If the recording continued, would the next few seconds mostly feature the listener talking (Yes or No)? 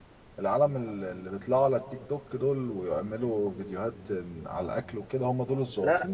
Yes